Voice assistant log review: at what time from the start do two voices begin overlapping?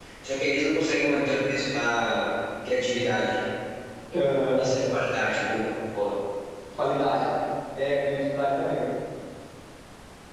none

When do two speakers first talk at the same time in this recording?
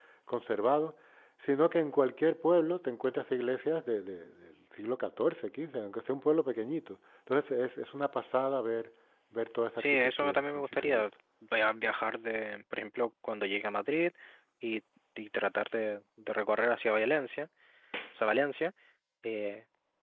9.8 s

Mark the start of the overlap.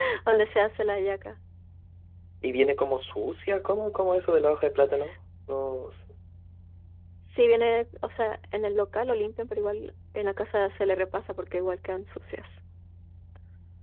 none

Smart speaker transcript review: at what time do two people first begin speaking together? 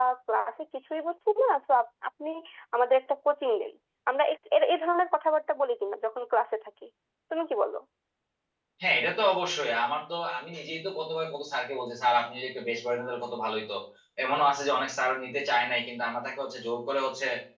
none

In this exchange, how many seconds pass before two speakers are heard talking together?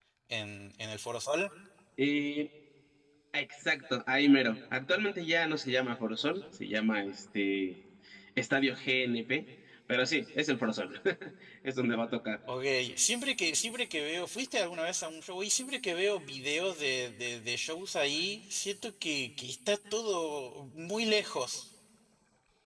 none

